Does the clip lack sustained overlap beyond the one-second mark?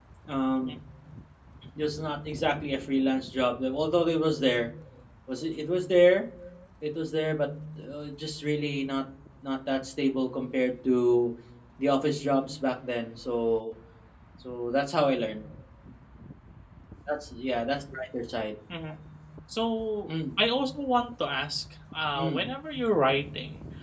Yes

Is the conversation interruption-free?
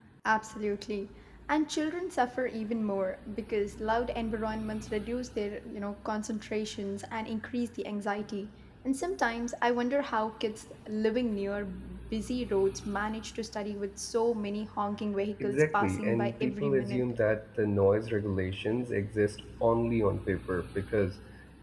No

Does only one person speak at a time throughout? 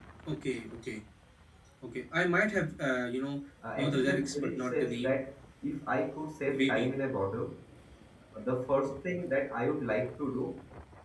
No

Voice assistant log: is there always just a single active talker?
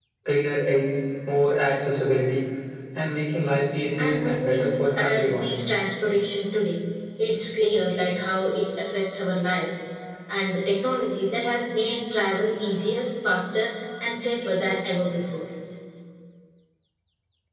No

